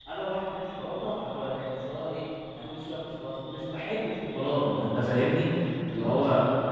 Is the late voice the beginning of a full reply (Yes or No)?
No